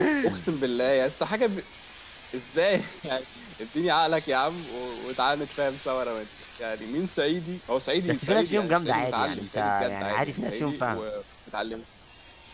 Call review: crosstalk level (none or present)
present